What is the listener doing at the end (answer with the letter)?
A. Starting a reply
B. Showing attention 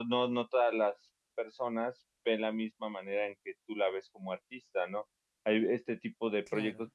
B